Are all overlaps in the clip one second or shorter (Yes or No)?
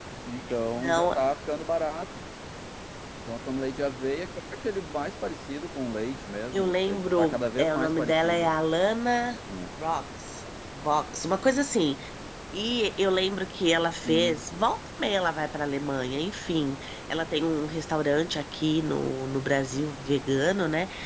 No